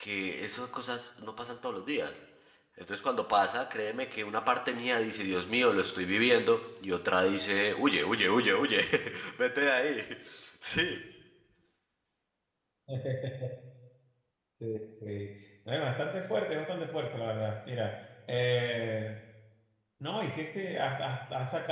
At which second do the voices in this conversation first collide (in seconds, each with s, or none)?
none